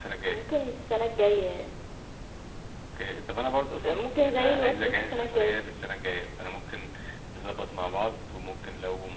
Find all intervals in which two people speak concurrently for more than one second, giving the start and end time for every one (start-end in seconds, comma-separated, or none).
3.8-5.6